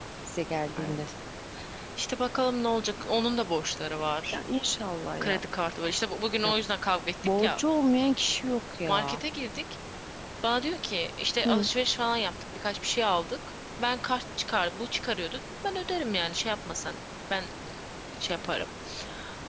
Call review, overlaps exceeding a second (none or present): none